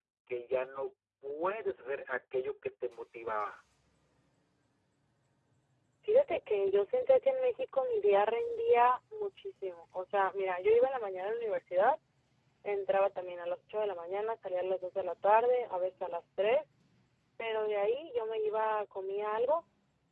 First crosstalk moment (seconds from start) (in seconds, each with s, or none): none